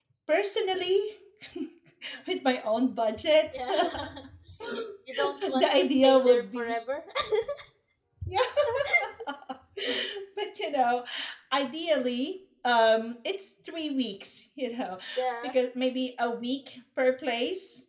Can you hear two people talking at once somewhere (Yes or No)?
Yes